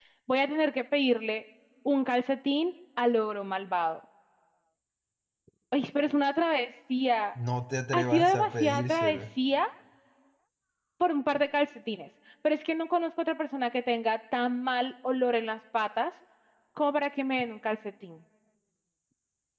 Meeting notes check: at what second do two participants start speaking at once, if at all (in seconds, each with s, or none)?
7.9 s